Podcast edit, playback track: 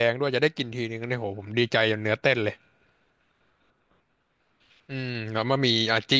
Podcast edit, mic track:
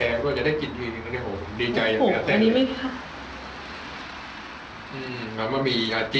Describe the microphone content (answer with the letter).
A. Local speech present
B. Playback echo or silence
A